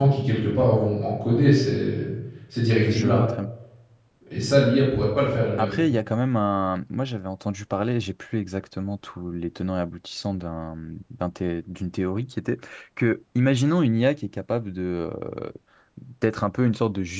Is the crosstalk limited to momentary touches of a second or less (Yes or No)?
Yes